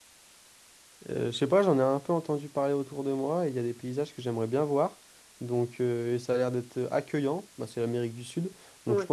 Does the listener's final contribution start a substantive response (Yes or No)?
No